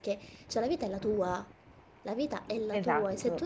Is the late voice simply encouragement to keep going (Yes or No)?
Yes